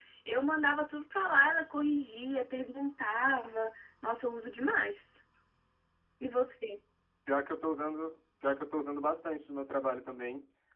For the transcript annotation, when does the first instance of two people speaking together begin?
none

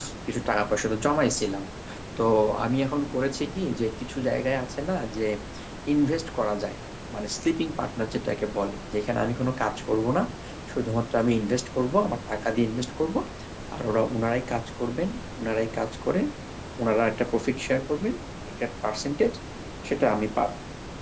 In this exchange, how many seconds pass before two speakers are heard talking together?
none

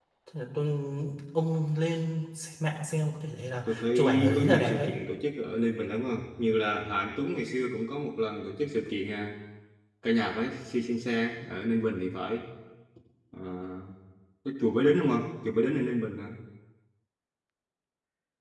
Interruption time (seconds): 4 s

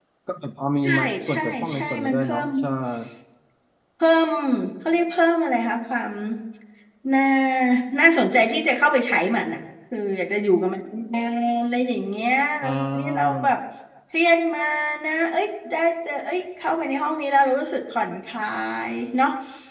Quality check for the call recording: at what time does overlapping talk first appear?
1 s

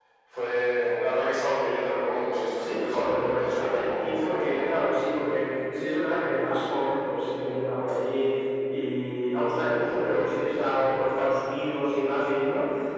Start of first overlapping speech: 3 s

